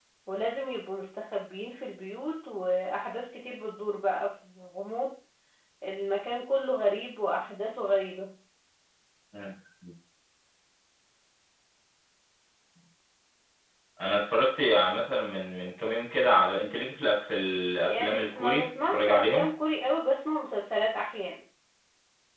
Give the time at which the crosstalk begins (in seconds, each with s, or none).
17.9 s